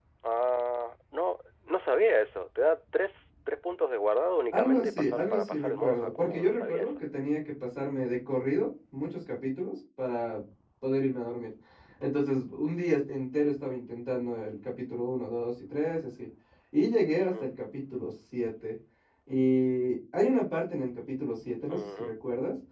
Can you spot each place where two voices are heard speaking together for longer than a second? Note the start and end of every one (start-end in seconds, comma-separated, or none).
4.5-6.9